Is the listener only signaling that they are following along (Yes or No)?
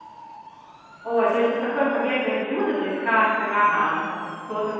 Yes